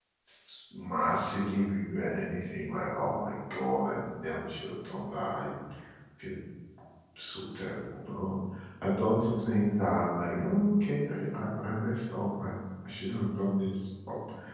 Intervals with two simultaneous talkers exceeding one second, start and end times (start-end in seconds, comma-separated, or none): none